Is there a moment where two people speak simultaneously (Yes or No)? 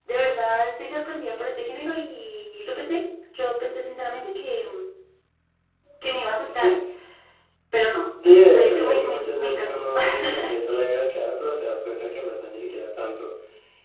Yes